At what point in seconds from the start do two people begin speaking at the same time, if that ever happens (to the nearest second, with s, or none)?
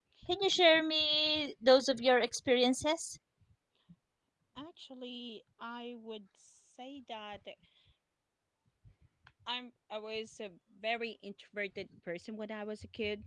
none